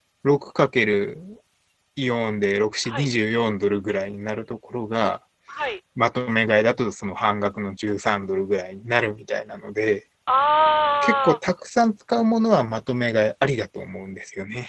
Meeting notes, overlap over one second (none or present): none